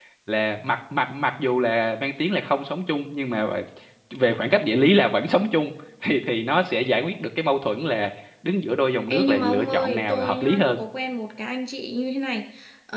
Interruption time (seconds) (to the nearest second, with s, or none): 9 s